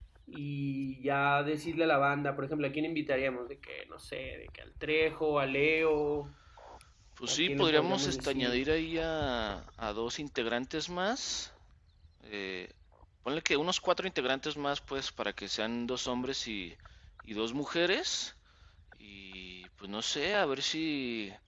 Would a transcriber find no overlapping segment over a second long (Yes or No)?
No